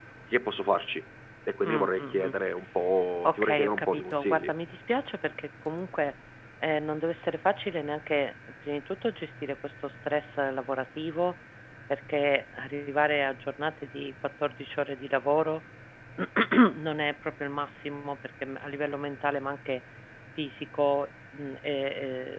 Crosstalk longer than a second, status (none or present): present